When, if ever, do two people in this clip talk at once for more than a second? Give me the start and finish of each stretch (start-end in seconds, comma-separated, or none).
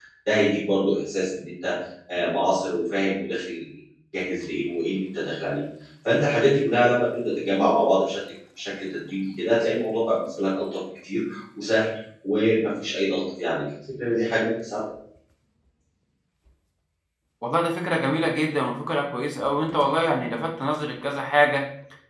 none